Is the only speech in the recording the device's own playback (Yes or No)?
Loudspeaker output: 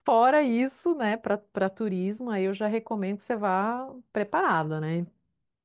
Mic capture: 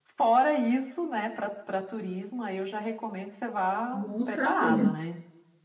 No